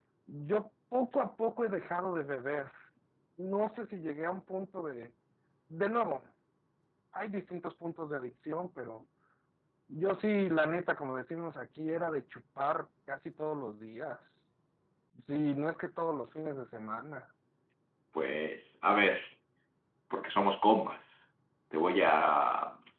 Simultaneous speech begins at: none

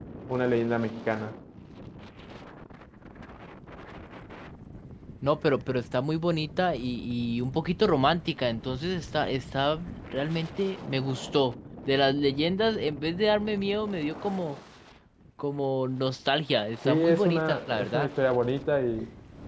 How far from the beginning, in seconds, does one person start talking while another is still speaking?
16.8 s

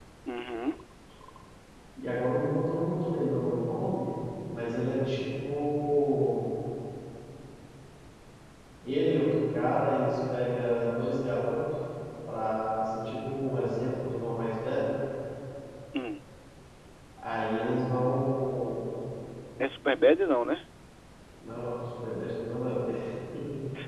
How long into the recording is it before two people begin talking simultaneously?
none

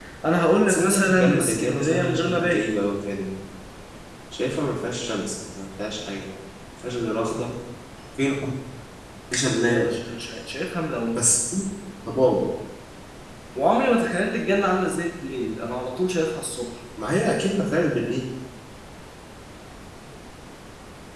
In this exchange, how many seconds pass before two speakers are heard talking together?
0.7 s

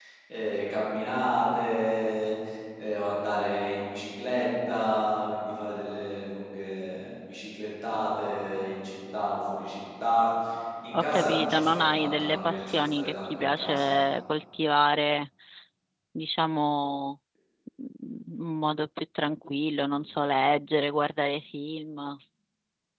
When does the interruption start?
10.9 s

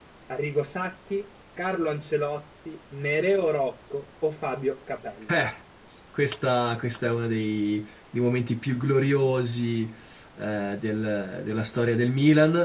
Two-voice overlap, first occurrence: none

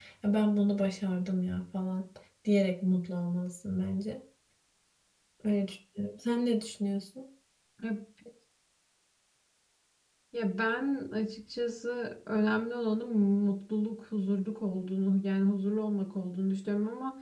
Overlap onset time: none

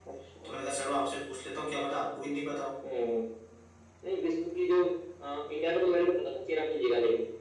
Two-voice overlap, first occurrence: none

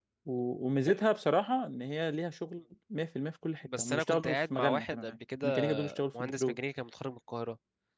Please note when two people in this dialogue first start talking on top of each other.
3.6 s

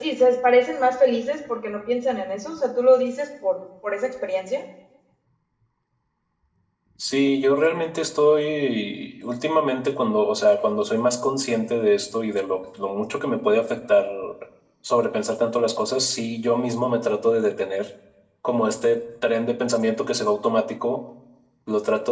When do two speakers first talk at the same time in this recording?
none

